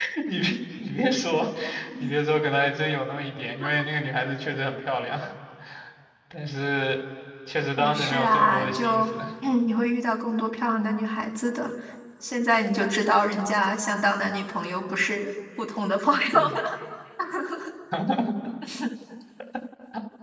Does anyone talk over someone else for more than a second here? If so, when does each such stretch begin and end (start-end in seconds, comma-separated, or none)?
7.8-9.1